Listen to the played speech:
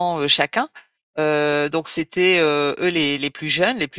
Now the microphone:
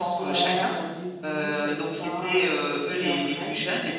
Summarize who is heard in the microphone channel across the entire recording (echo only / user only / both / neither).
both